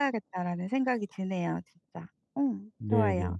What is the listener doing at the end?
taking over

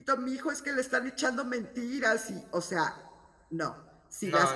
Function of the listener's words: listening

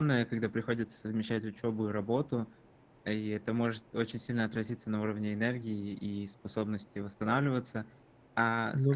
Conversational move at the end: listening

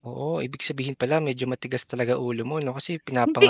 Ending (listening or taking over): listening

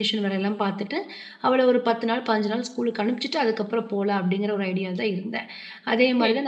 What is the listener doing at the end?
taking over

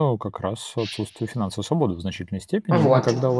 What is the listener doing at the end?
listening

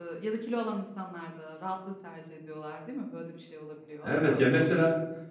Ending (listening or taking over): taking over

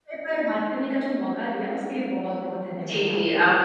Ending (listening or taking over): taking over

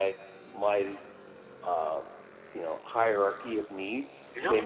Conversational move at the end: taking over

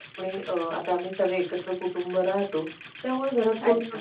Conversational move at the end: listening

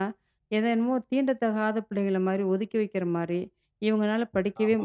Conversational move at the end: listening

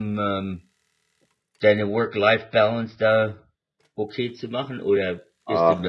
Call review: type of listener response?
taking over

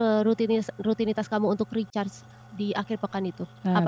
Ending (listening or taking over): taking over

